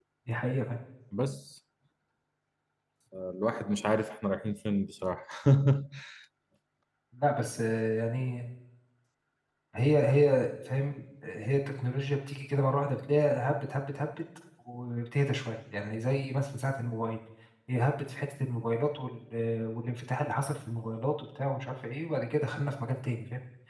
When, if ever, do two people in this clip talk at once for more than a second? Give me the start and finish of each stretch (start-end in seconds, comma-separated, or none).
none